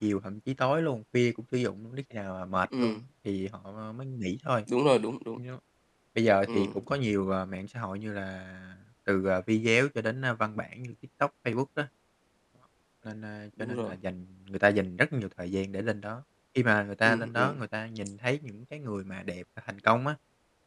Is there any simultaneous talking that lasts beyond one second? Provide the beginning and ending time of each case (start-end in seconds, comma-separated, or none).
none